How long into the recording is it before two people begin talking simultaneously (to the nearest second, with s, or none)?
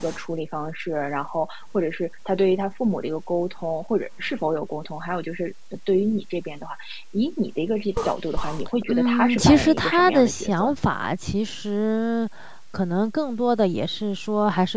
9 s